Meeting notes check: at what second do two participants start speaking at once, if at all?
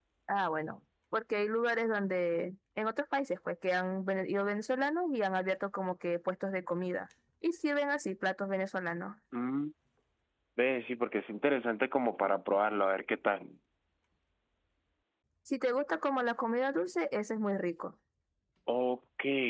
none

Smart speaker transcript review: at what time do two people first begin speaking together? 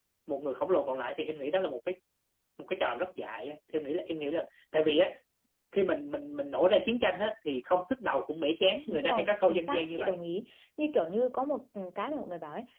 8.9 s

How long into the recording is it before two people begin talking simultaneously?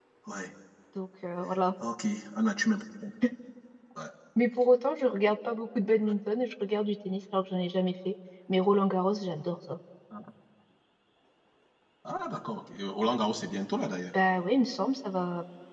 none

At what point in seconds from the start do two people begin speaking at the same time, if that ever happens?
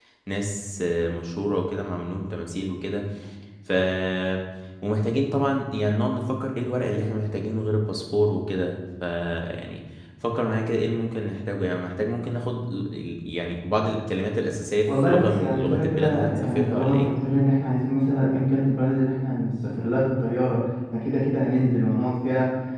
14.9 s

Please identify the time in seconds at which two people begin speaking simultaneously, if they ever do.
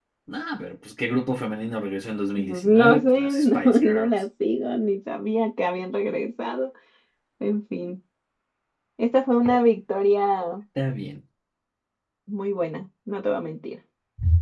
2.4 s

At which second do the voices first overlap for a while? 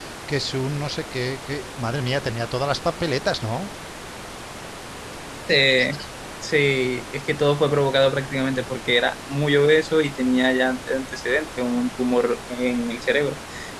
none

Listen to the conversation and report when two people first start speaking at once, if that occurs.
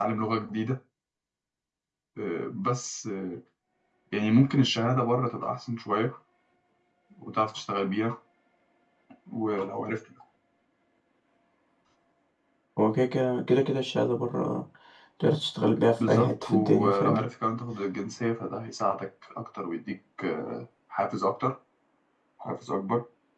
16.0 s

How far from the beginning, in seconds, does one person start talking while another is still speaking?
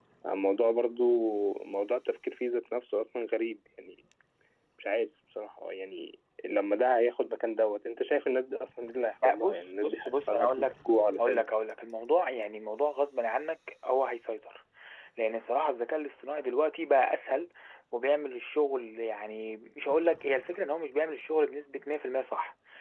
9.2 s

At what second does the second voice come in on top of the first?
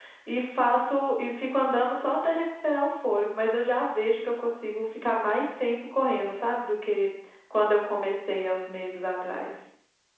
none

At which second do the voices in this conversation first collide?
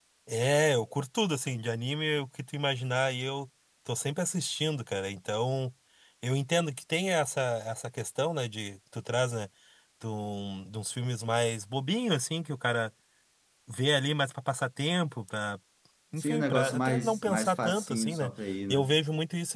16.2 s

